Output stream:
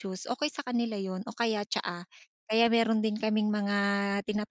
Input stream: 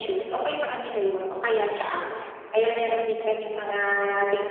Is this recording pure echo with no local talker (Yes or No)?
Yes